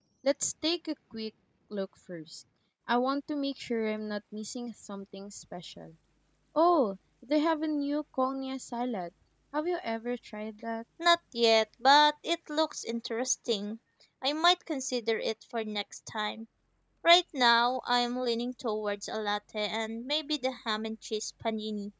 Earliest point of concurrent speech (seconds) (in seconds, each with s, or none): none